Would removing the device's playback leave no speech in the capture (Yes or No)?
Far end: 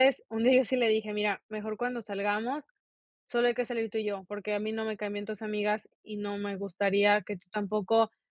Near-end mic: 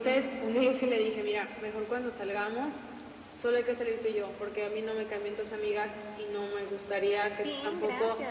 No